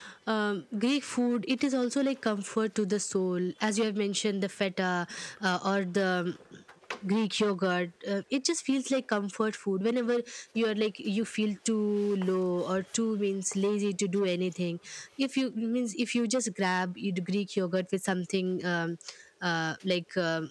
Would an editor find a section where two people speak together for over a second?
No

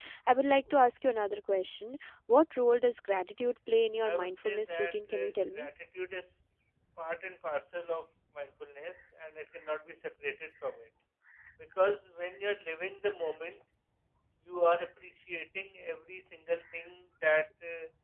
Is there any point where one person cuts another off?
Yes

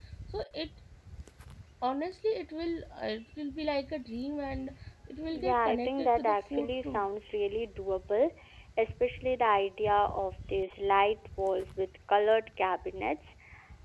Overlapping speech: Yes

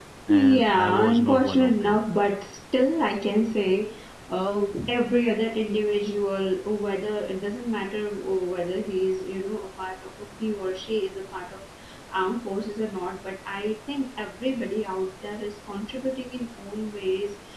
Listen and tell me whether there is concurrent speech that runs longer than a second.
Yes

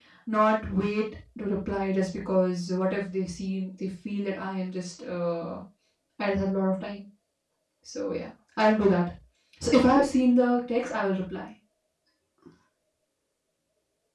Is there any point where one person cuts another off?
No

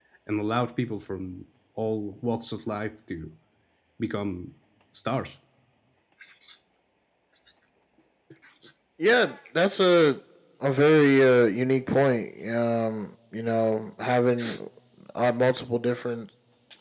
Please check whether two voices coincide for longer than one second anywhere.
No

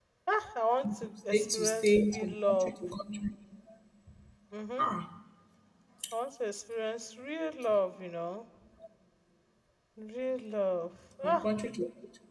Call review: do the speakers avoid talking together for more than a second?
No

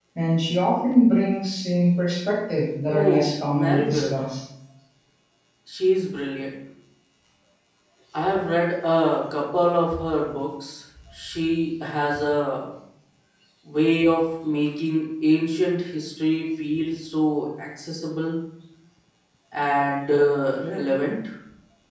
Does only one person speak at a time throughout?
No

